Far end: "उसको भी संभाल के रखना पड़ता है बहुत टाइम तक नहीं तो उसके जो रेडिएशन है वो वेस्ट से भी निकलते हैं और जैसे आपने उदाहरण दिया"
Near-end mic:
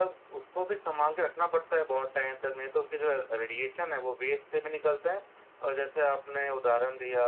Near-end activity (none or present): none